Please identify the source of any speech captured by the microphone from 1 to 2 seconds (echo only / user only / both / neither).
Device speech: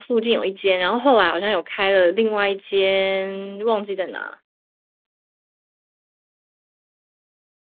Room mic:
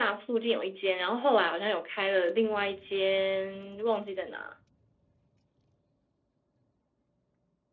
echo only